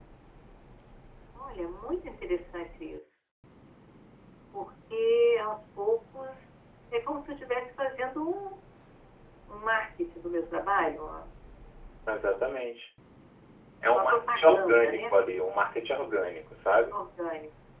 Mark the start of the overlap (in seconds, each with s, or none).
13.9 s